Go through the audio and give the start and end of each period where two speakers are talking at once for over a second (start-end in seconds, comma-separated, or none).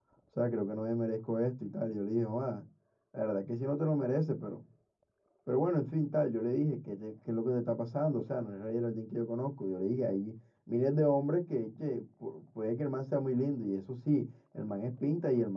none